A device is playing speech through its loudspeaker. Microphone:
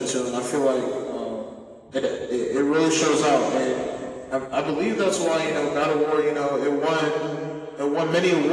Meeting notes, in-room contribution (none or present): none